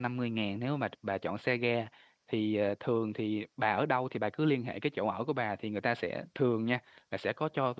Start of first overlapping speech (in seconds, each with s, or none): none